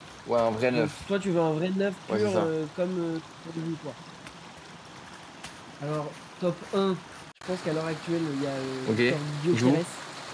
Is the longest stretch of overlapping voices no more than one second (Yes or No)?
Yes